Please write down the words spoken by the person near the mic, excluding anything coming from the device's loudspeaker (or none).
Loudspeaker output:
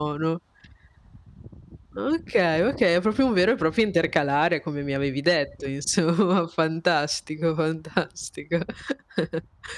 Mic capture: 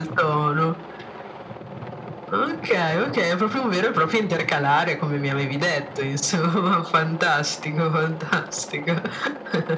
none